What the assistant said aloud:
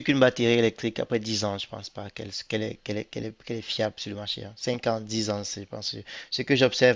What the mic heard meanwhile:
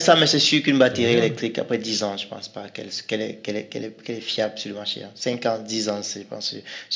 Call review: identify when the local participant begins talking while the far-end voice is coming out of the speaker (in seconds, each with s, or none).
0.8 s